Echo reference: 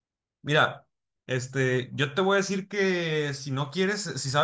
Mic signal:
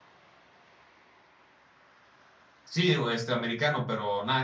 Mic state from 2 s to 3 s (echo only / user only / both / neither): user only